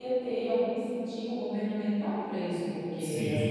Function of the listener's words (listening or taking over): listening